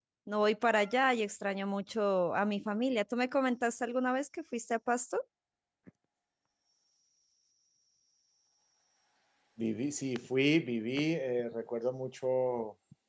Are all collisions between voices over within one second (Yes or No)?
Yes